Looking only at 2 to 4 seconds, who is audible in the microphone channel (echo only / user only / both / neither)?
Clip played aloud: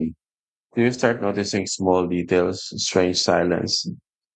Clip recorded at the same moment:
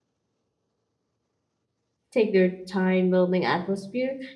user only